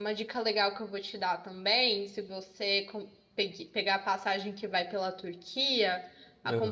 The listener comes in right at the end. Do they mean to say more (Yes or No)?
No